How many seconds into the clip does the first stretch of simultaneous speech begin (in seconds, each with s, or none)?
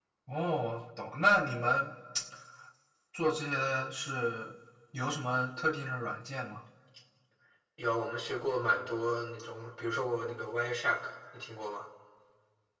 none